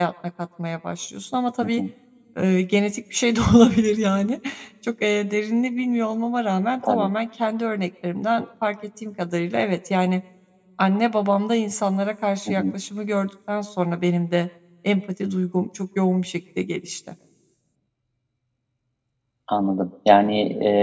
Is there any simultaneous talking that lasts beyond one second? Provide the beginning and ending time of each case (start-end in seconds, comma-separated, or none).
none